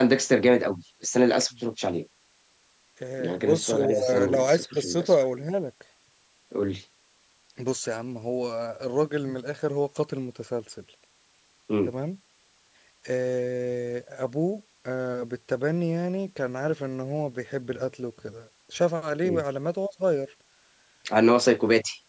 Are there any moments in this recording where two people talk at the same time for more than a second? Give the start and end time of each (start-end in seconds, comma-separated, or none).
3.2-5.1